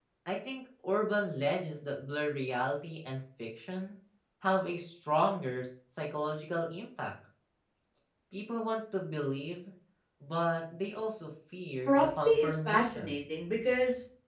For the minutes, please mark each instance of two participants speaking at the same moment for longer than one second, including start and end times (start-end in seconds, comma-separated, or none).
11.9-13.2